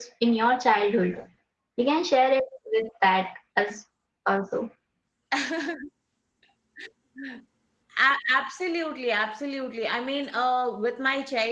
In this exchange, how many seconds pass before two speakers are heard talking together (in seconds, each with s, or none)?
none